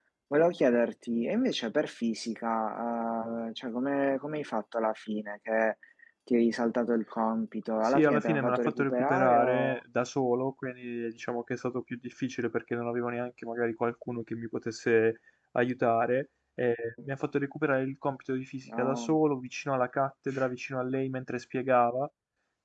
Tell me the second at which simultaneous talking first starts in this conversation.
7.8 s

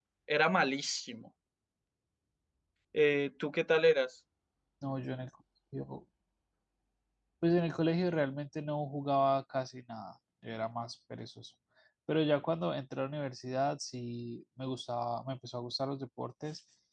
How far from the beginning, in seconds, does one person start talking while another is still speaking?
none

